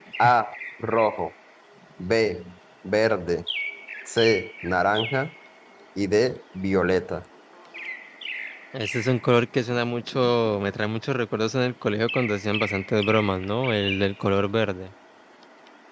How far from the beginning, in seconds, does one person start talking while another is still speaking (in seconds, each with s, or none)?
none